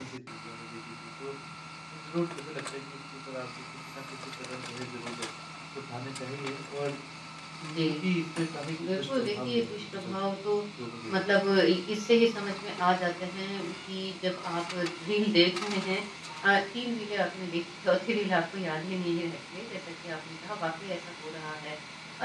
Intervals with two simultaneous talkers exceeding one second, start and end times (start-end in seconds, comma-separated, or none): 8.8-10.1